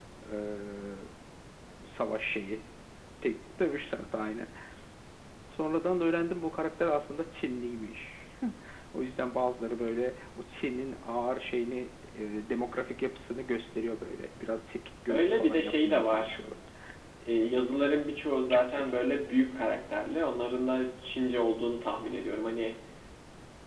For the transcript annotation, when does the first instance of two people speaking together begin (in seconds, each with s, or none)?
15.1 s